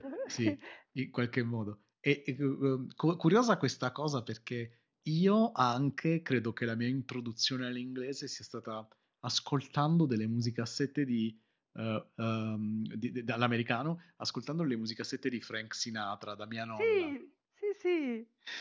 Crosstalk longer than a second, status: none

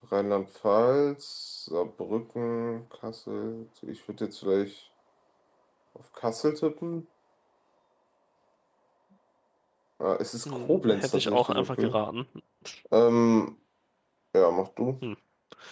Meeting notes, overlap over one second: present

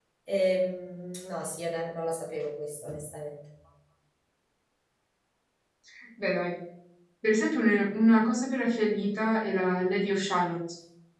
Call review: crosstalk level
none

